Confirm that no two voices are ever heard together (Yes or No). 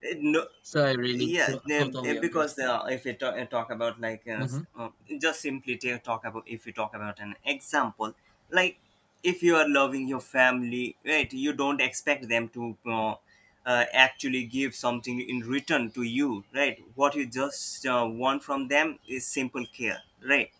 No